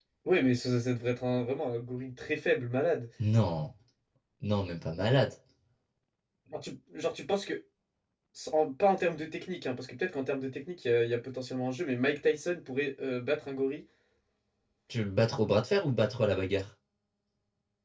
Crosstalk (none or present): none